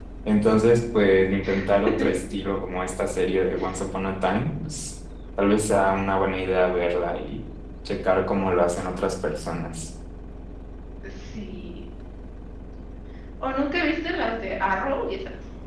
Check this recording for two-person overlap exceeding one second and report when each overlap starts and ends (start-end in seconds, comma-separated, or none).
none